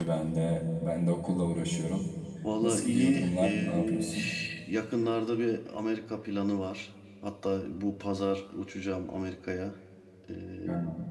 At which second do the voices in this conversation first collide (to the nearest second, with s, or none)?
3 s